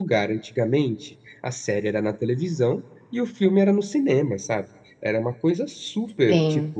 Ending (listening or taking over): listening